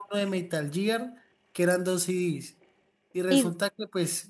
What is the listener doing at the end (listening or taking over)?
listening